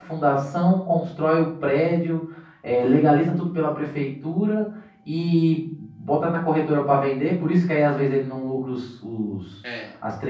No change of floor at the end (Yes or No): Yes